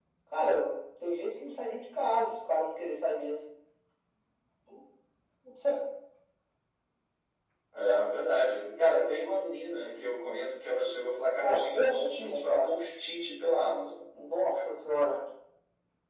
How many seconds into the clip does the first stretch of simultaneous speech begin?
11.4 s

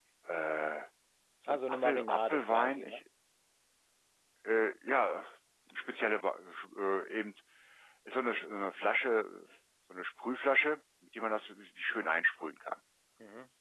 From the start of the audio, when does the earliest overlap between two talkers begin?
1.4 s

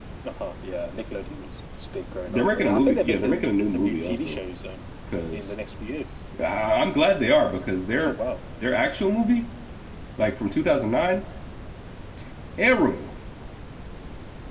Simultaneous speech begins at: 2.3 s

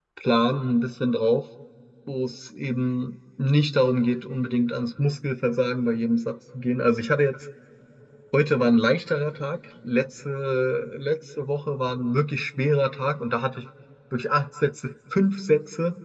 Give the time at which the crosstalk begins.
none

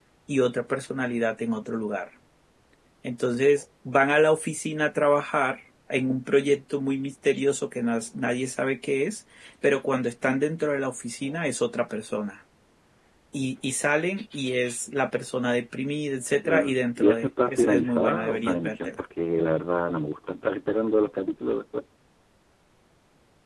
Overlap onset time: 16.4 s

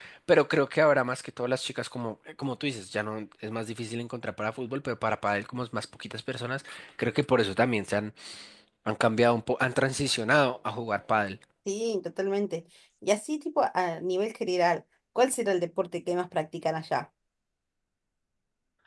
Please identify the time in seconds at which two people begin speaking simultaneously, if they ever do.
none

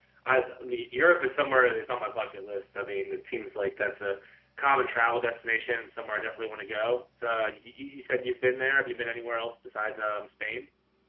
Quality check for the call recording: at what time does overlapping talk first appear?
none

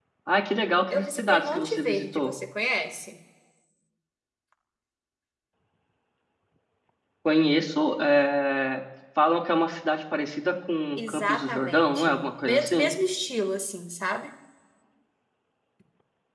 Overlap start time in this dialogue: 0.9 s

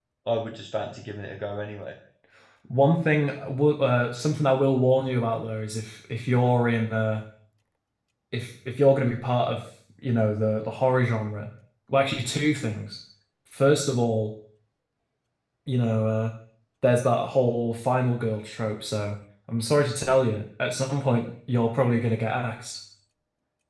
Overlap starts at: none

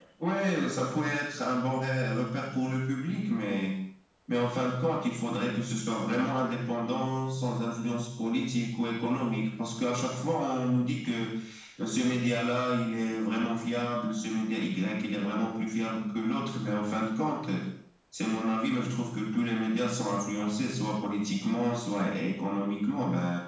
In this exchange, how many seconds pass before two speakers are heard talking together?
none

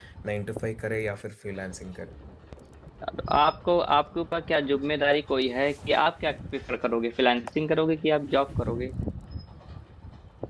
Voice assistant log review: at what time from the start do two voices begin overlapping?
none

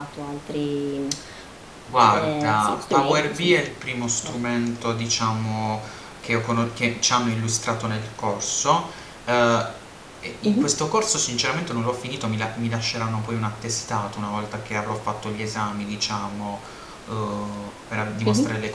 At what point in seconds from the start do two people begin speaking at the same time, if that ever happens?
2.1 s

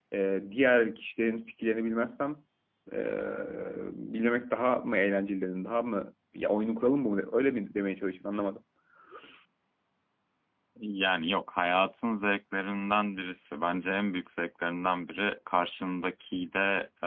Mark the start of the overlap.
none

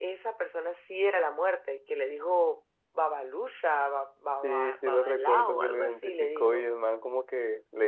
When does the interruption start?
4.4 s

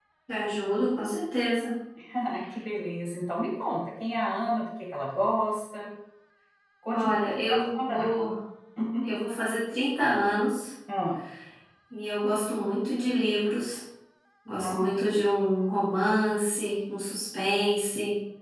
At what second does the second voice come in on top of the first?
6.9 s

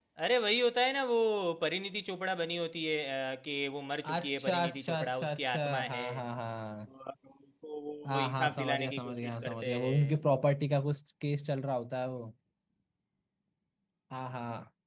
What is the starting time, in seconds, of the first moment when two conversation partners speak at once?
4.0 s

